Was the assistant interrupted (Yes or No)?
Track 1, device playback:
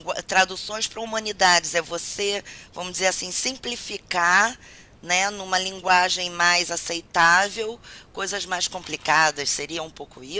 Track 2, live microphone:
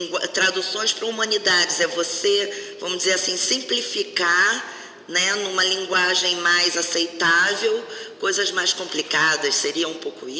No